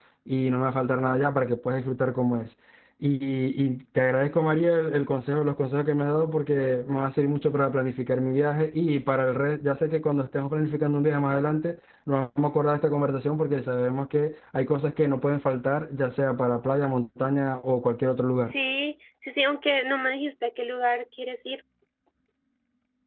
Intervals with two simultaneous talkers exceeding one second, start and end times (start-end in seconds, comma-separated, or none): none